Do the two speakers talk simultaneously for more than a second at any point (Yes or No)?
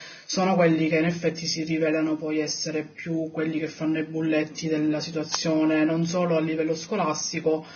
No